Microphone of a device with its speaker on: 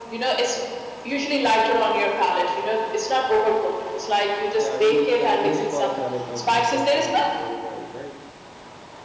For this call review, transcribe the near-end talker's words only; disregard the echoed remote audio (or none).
Yeah, we can use for salad of most of time this olive oil, right?